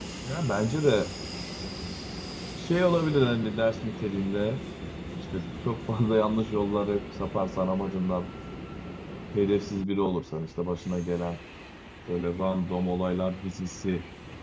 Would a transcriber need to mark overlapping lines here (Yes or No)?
No